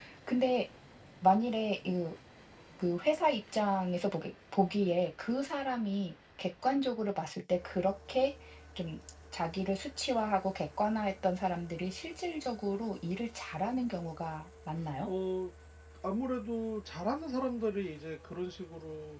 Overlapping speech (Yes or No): No